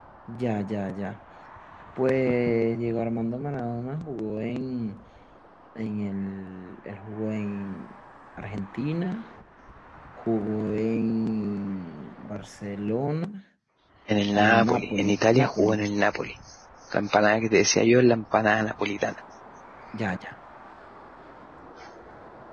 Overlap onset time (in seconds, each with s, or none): 14.3 s